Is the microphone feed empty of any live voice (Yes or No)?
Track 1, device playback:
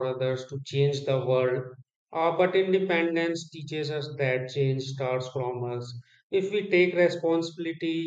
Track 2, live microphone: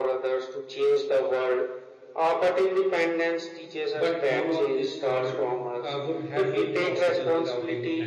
No